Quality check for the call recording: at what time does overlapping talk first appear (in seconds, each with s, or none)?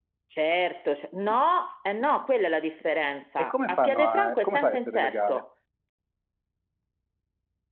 3.4 s